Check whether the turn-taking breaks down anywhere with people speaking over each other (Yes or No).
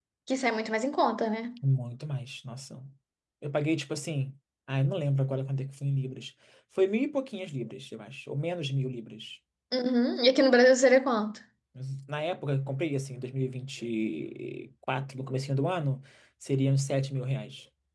No